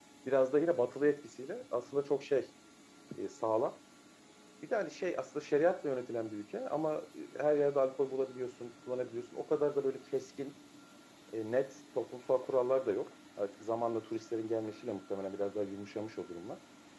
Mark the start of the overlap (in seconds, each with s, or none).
none